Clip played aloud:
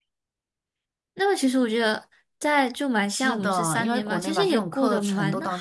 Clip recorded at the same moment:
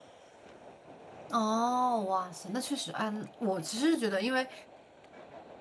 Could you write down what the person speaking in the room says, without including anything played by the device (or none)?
哦，哇塞，那确实，嗯，我其实觉得，因为